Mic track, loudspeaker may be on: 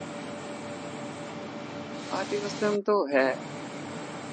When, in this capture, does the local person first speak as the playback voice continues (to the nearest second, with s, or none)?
2 s